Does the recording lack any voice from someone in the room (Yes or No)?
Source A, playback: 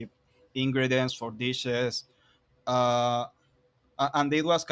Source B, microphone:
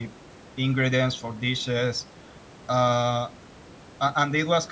Yes